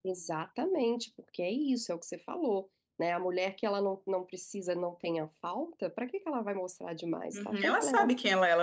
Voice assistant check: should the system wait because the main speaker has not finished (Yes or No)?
No